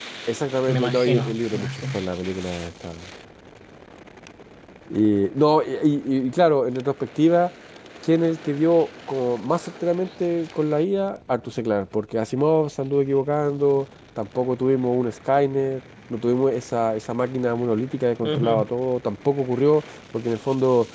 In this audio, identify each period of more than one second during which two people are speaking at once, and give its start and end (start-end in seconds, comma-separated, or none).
0.7-2.0